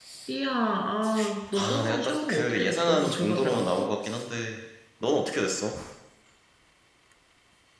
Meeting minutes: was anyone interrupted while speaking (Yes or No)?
Yes